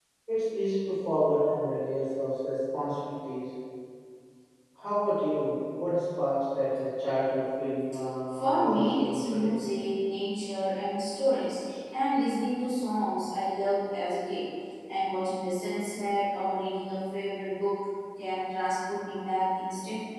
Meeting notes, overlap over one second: present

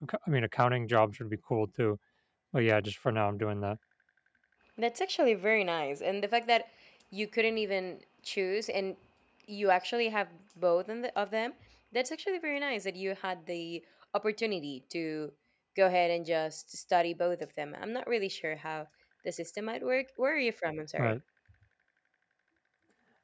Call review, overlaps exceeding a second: none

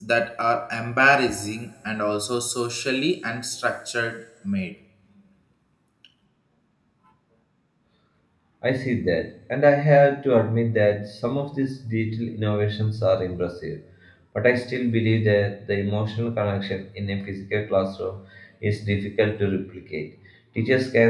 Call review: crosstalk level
none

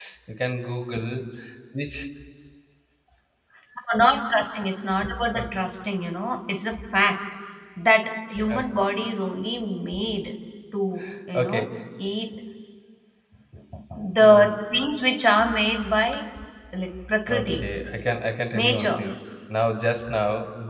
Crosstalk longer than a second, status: none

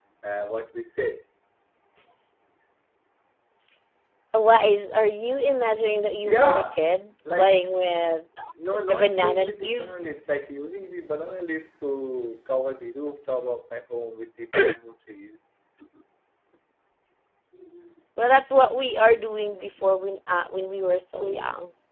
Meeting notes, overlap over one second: present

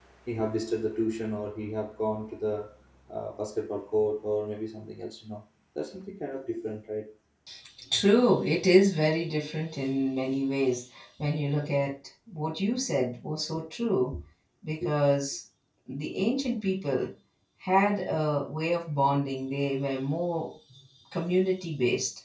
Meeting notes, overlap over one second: none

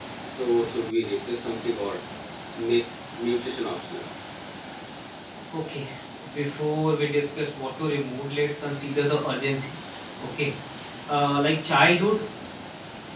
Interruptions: none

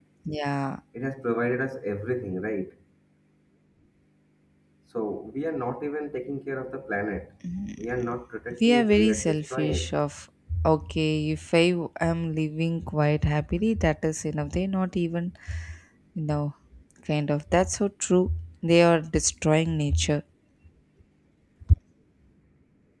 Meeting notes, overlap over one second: present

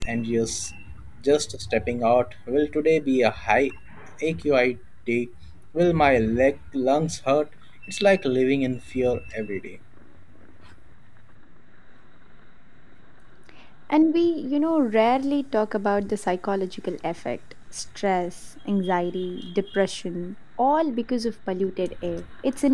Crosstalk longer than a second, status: none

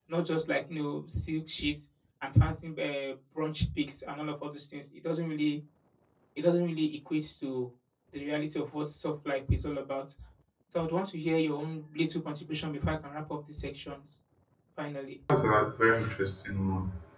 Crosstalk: none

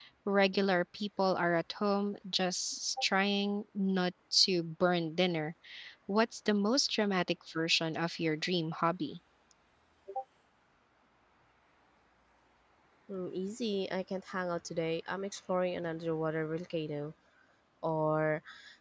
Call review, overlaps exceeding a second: none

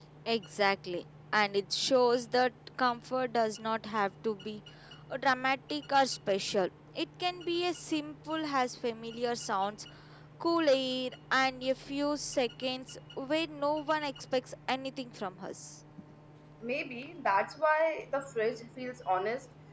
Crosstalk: none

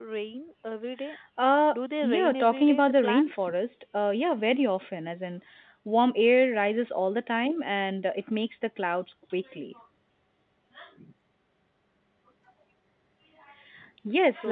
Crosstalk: present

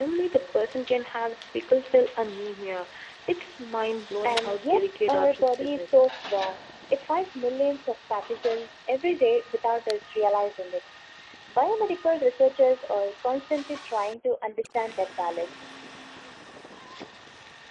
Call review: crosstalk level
present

